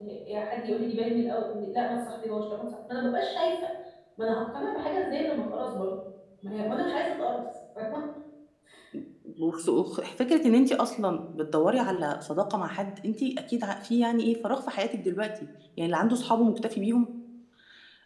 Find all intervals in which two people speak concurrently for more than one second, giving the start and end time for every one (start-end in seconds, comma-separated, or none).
none